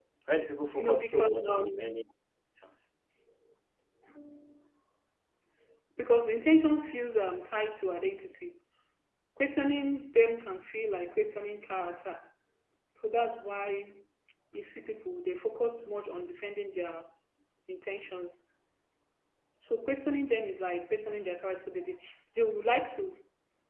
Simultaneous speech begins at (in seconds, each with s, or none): 0.8 s